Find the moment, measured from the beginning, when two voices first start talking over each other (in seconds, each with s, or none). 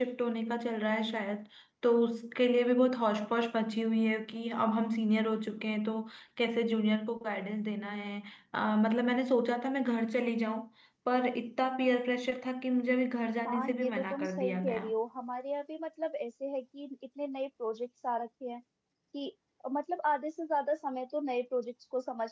13.4 s